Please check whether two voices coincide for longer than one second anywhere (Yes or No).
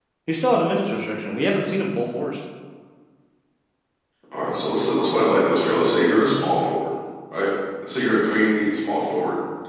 No